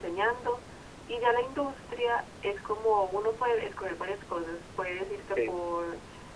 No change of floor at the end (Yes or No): Yes